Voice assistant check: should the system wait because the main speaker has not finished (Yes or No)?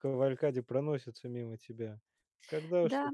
No